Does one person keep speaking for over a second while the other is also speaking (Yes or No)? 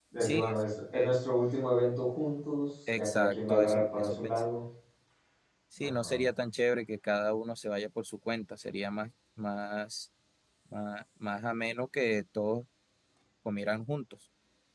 Yes